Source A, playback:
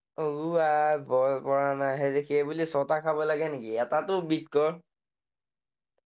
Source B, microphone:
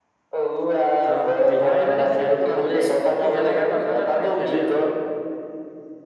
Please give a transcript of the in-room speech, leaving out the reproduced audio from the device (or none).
অ', বিহাৰী মানে খেলটো ভালেই সি যেনেকে কথা কয় তেনেকে খেলেও।